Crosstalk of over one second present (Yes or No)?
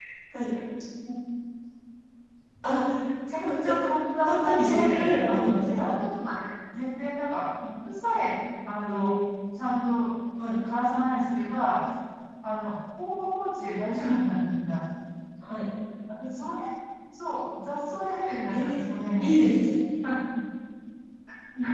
Yes